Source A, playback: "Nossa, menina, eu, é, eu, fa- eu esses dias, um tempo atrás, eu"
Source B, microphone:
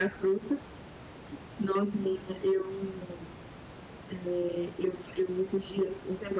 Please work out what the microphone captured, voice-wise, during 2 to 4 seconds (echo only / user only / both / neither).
echo only